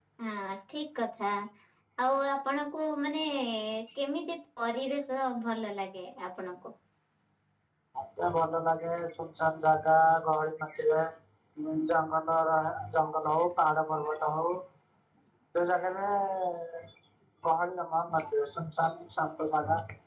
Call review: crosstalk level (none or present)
none